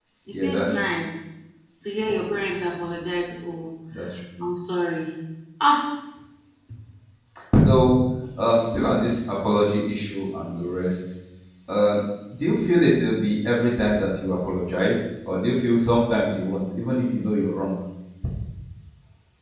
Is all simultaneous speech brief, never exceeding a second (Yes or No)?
Yes